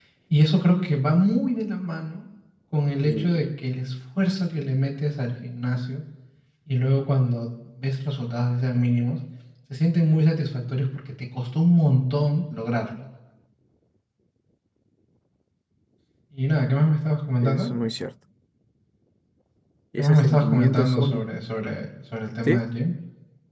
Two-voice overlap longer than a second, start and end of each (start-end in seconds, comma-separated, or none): 20.0-21.3